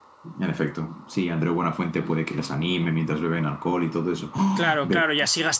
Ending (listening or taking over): taking over